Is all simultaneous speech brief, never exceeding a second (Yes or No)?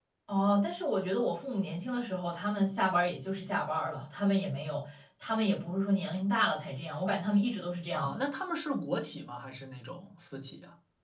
Yes